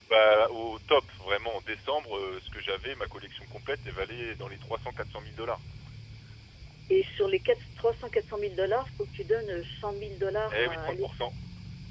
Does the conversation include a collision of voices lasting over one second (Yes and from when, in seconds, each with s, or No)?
No